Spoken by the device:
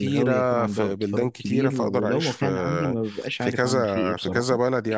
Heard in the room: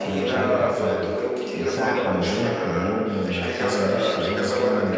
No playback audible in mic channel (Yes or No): No